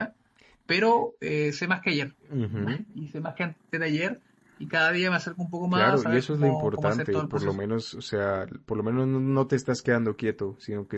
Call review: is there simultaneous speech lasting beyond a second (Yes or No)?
Yes